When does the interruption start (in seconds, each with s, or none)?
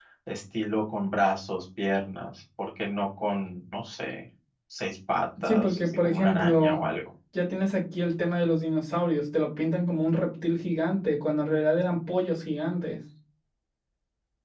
5.4 s